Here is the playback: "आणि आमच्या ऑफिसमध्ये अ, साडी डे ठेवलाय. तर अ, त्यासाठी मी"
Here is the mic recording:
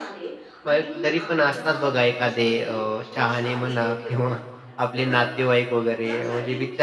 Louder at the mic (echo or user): user